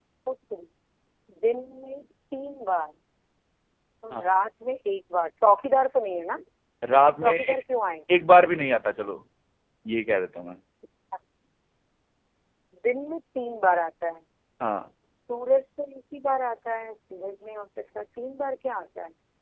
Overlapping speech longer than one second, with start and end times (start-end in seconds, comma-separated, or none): none